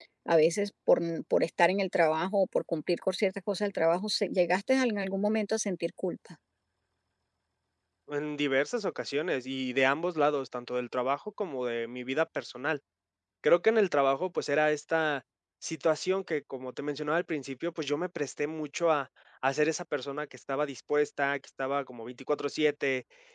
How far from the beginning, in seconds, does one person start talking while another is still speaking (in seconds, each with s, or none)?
none